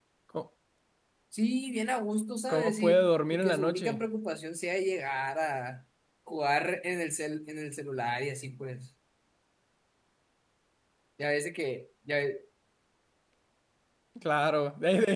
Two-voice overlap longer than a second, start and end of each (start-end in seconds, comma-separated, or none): 2.5-4.0